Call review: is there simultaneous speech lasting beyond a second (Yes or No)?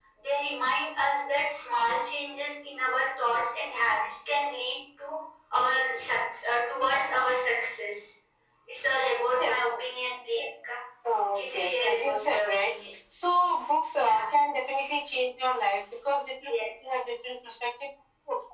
Yes